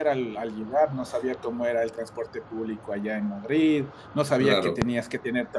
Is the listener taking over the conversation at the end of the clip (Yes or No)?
No